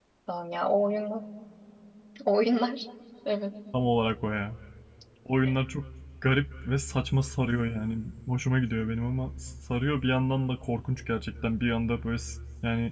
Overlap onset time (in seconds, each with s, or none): none